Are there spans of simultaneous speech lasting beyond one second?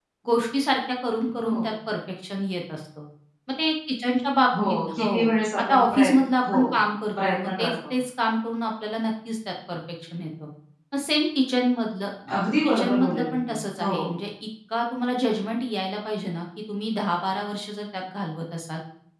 Yes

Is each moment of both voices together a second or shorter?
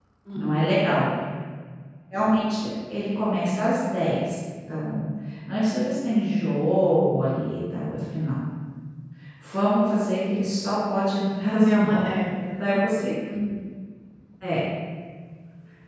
No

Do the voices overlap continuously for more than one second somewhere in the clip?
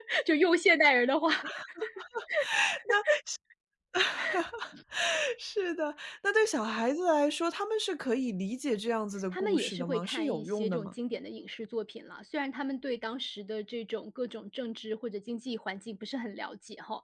Yes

